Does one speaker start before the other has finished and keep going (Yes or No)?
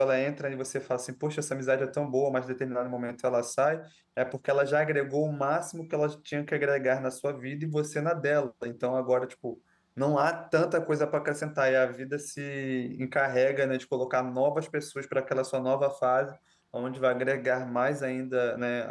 No